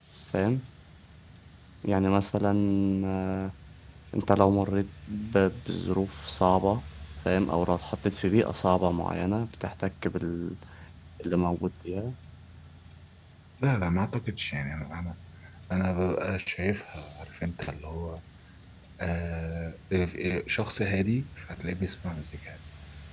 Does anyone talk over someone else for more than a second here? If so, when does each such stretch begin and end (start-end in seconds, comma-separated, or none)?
none